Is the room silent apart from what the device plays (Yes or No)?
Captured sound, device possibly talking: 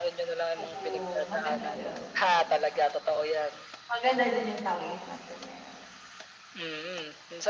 No